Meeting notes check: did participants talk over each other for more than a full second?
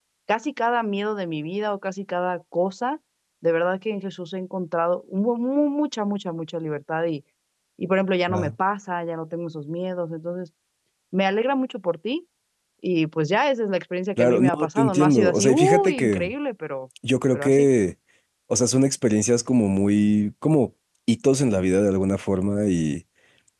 Yes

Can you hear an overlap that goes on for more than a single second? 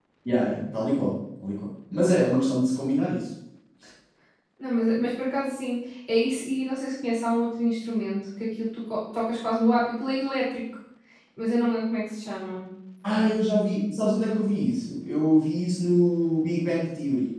No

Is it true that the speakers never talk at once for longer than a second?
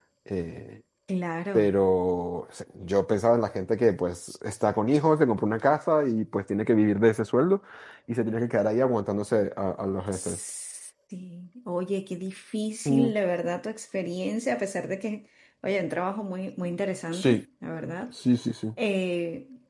Yes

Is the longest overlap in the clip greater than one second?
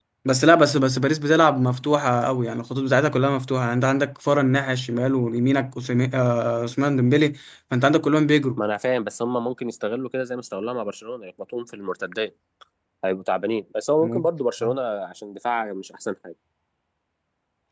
No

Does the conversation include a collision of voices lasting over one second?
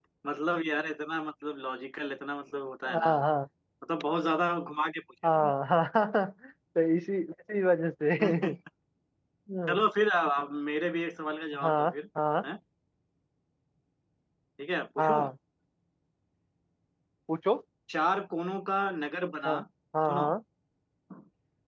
No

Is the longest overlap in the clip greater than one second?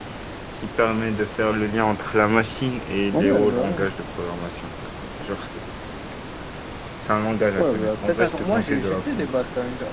Yes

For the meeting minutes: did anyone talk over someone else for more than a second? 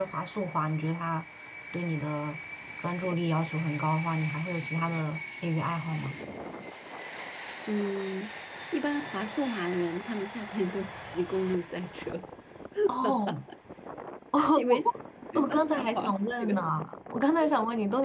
Yes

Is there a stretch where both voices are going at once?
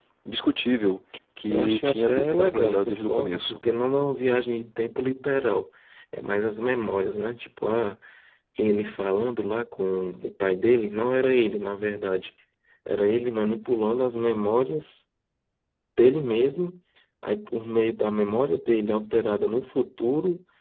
Yes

